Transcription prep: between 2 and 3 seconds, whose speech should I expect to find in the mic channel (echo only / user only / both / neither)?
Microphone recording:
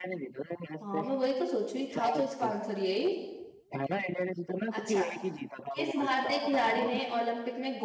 both